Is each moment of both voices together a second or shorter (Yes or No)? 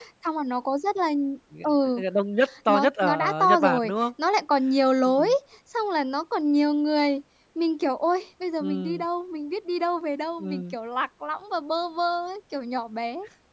No